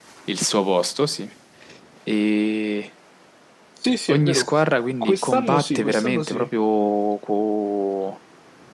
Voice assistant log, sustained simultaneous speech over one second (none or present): present